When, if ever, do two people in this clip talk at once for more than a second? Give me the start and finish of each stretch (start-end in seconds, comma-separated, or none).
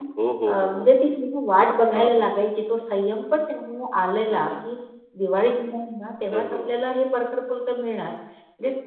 none